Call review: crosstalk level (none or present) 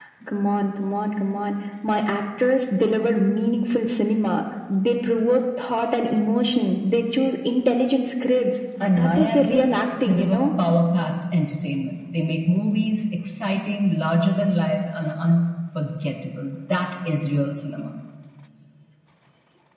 present